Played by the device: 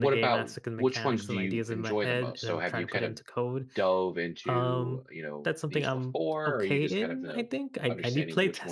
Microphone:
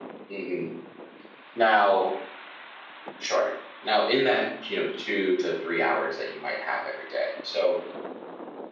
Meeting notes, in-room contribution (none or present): present